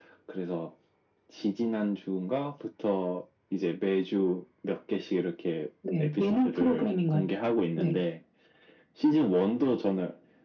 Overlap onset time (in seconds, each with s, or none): 5.8 s